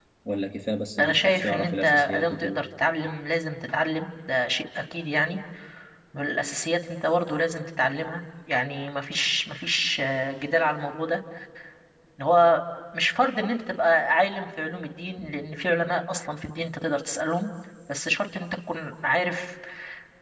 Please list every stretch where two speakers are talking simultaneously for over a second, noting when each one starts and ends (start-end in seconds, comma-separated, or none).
1.0-2.6